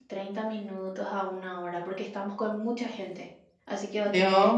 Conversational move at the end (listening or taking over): taking over